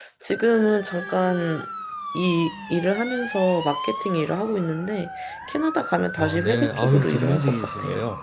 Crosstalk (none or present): present